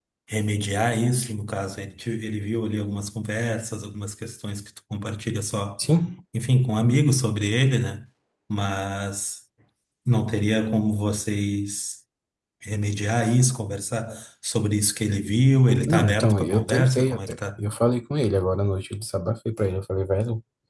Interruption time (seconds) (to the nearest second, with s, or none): 16 s